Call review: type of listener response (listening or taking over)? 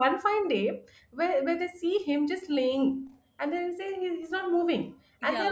listening